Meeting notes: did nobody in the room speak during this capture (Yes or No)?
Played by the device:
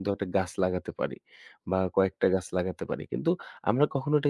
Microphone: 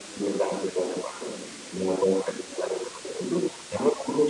Yes